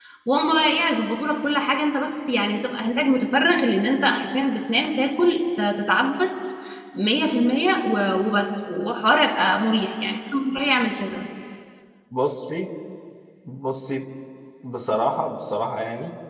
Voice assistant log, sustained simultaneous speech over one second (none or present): none